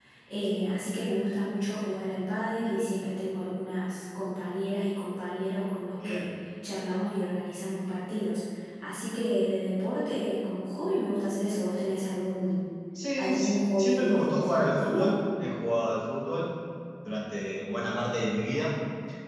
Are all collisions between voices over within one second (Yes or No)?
No